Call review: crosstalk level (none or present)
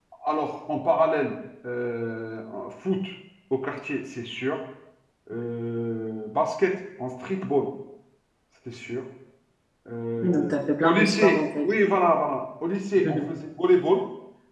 present